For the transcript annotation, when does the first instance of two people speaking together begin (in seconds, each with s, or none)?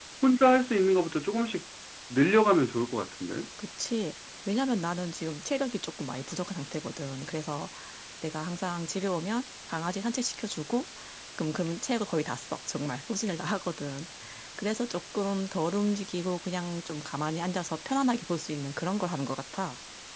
none